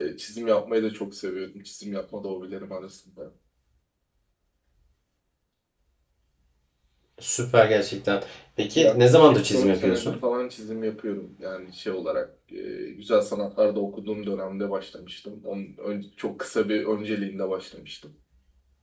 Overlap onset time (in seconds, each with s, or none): 8.8 s